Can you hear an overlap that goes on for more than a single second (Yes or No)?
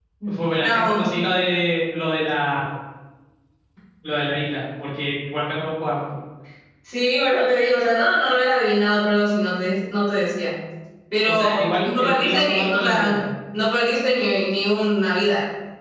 Yes